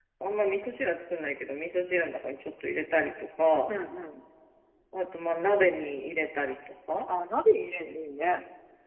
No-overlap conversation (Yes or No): Yes